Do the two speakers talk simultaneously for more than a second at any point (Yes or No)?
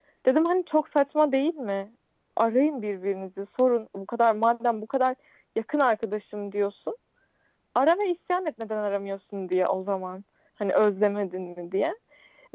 No